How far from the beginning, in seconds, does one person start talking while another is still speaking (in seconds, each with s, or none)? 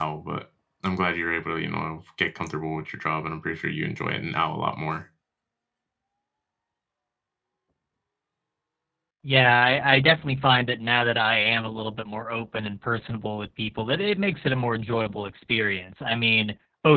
none